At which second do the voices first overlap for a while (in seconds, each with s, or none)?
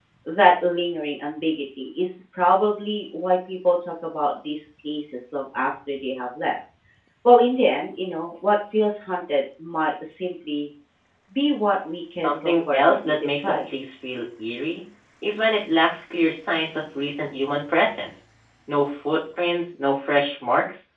12.2 s